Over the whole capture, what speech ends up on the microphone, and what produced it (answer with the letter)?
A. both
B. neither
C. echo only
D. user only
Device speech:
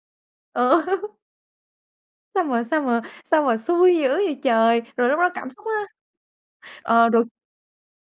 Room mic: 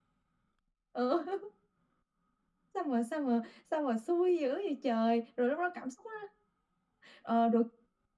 C